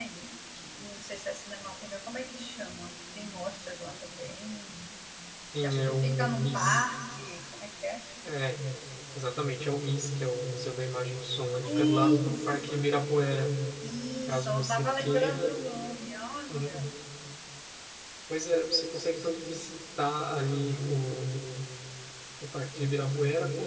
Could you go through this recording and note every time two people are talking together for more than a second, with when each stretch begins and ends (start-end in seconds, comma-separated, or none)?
5.6-6.9, 11.6-12.9, 14.3-15.5